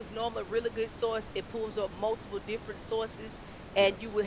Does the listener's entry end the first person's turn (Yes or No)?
No